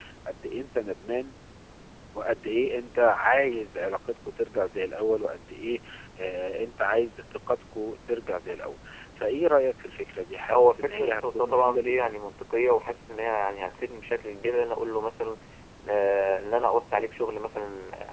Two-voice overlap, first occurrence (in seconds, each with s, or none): 10.5 s